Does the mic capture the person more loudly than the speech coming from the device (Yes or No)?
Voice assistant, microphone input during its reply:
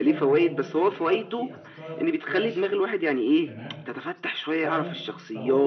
No